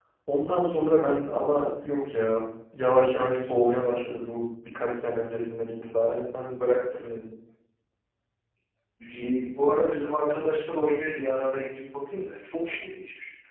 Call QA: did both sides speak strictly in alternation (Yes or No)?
Yes